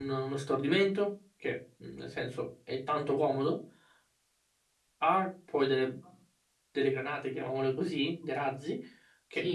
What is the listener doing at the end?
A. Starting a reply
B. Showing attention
A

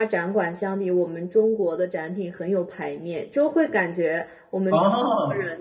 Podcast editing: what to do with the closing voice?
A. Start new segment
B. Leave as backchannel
B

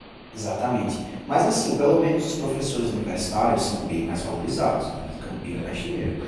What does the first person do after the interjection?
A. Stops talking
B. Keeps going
B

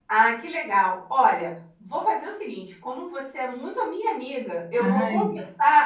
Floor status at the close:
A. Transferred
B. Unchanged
B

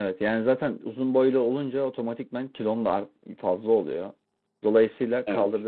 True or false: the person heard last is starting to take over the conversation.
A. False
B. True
A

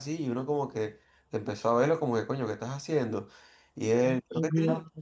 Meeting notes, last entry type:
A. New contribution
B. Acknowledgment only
B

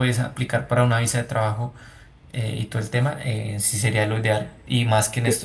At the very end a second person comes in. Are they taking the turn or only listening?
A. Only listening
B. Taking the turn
A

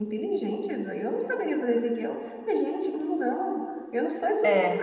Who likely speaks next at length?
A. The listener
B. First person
B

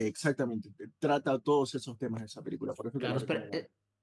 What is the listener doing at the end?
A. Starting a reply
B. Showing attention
A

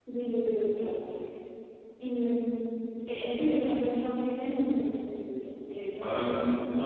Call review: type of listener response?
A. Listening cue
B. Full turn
B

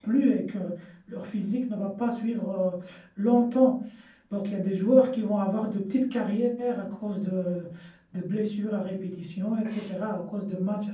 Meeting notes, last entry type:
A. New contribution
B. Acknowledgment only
B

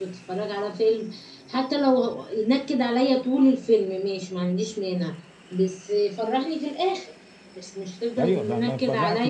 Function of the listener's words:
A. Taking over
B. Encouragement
A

